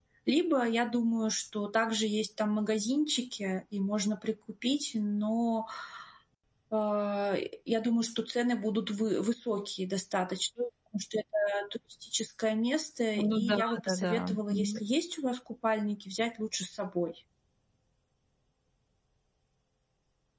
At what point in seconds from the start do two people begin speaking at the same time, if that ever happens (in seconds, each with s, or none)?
13.2 s